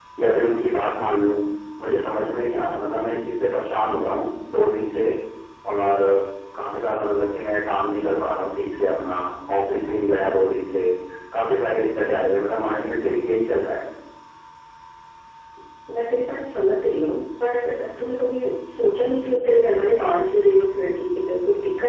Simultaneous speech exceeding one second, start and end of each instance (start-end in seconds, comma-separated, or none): none